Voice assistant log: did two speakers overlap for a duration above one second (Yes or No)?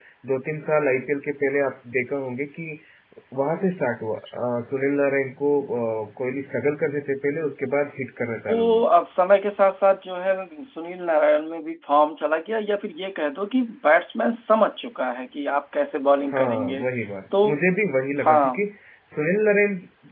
No